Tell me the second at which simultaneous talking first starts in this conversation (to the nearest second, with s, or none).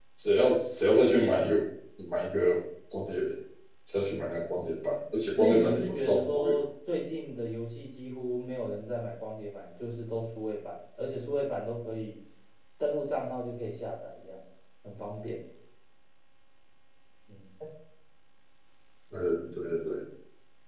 5 s